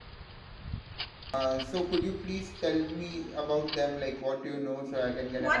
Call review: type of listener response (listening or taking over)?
taking over